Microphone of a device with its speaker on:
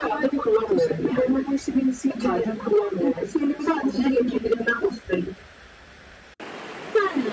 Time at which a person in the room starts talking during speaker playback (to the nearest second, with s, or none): none